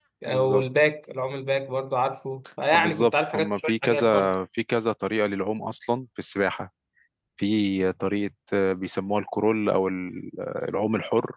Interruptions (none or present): present